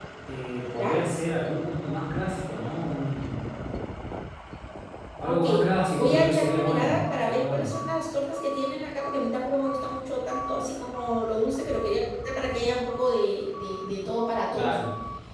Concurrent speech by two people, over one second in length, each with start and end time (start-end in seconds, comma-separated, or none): 6.0-7.7